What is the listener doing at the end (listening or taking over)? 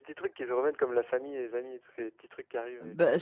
taking over